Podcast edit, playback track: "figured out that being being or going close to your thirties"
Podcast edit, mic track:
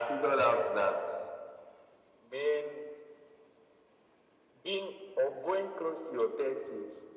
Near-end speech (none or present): none